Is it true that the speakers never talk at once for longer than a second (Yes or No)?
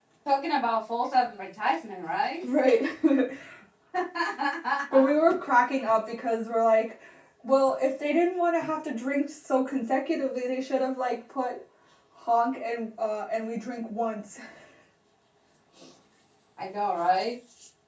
Yes